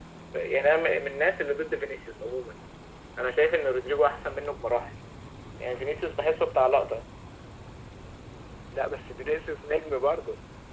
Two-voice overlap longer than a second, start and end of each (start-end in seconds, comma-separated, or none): none